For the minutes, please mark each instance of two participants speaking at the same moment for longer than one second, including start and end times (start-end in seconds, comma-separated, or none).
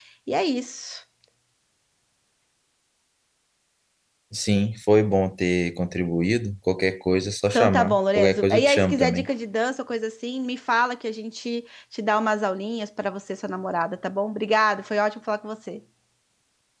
7.5-9.3